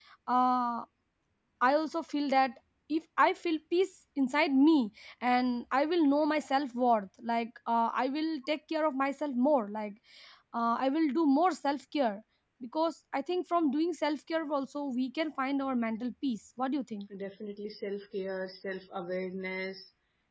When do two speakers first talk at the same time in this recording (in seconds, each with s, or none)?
none